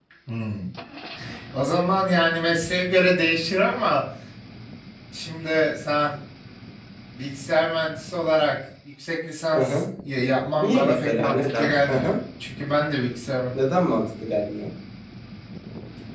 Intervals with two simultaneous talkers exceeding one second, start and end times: 10.6-12.1

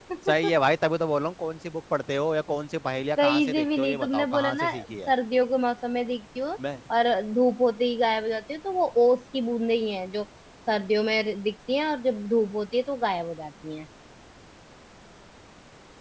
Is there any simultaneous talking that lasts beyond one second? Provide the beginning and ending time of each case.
3.2-5.1

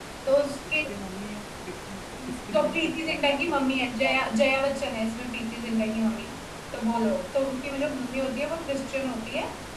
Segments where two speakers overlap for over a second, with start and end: 2.5-4.3

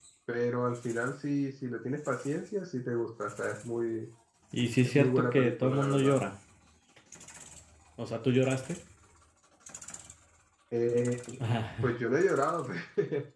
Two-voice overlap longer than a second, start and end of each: 4.8-6.2

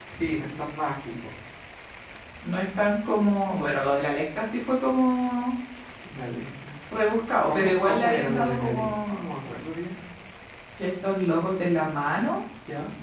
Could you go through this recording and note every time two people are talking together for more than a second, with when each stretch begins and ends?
7.4-9.2

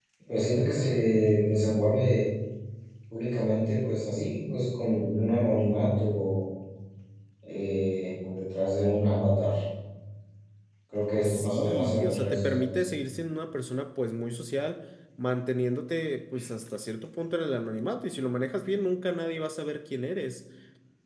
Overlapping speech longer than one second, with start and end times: 11.2-12.7

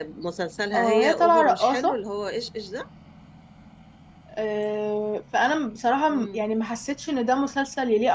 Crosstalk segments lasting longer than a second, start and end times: 0.8-2.0

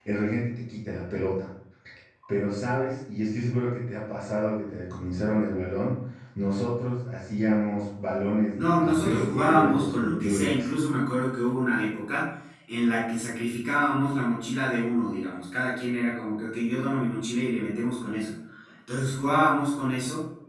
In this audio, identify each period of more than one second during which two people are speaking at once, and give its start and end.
8.5-10.7

